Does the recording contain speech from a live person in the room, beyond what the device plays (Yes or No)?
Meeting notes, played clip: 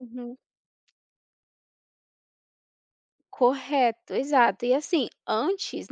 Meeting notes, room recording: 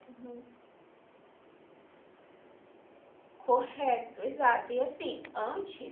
No